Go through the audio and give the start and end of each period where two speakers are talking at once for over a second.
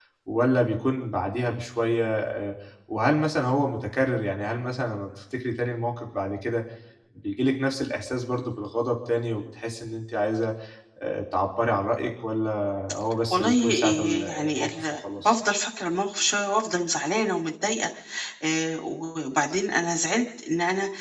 13.3-15.3

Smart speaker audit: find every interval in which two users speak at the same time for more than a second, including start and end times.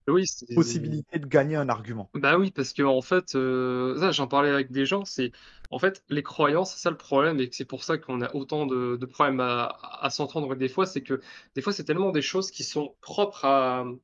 none

